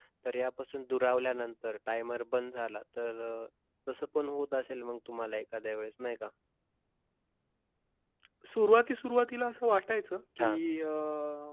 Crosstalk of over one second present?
No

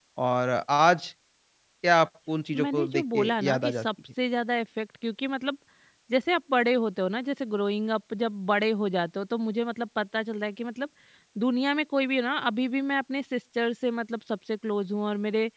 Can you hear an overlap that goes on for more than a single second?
Yes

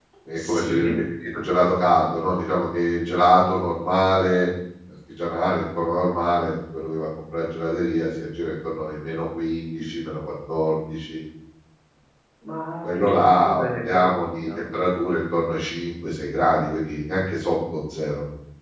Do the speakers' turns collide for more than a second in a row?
Yes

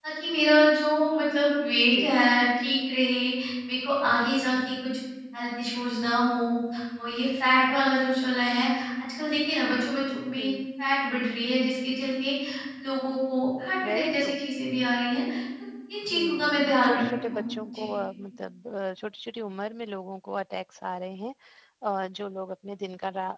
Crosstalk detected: Yes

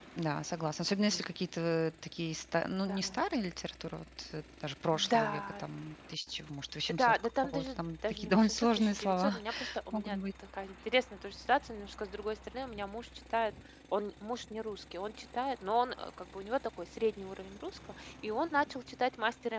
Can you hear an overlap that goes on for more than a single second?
Yes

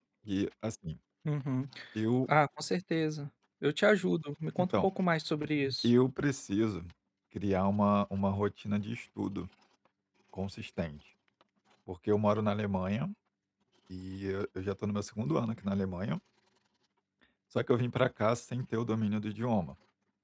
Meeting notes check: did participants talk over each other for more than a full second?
No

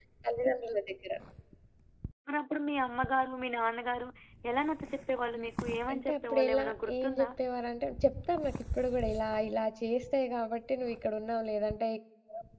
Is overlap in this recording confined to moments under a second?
No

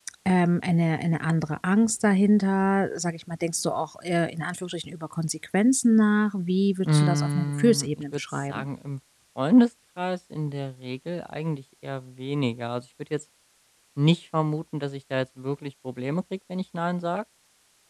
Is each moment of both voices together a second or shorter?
No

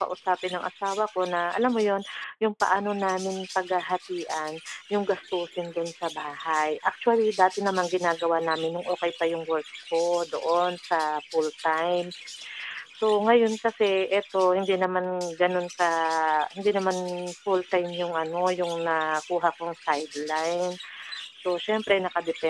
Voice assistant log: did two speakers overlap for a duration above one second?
No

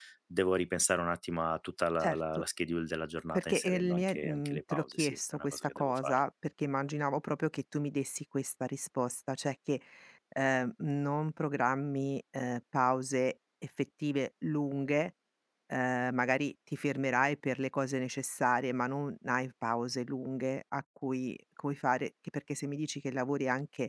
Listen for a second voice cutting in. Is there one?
Yes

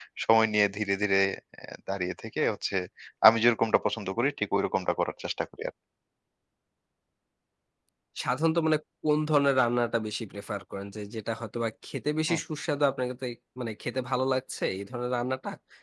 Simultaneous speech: No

